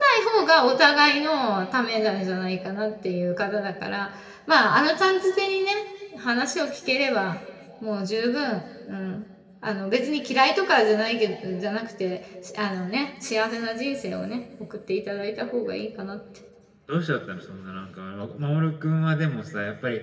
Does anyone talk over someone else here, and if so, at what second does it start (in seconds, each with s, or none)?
none